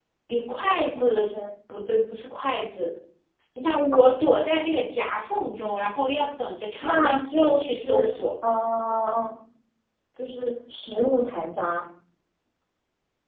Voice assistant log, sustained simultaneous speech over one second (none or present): present